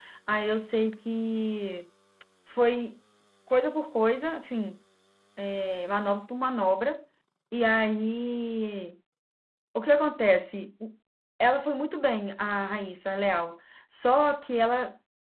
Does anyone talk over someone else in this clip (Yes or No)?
No